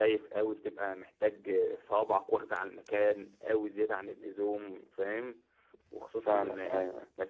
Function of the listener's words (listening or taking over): listening